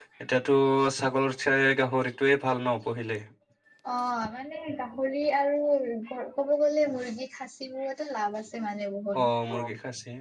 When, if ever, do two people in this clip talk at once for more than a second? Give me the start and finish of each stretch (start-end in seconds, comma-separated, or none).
none